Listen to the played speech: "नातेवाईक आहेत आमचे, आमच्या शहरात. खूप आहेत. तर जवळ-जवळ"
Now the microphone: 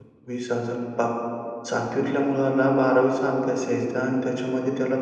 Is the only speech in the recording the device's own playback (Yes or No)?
No